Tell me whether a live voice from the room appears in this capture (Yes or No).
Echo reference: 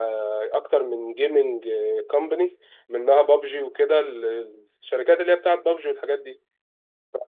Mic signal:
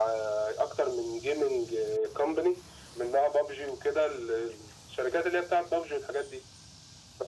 No